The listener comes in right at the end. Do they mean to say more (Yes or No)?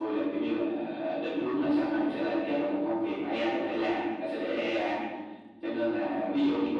No